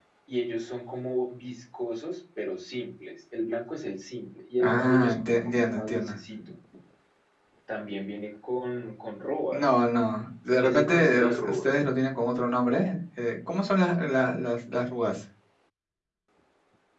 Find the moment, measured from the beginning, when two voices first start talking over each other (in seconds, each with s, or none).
4.6 s